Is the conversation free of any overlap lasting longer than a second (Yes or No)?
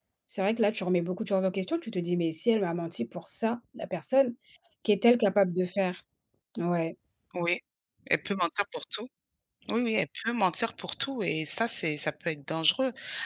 Yes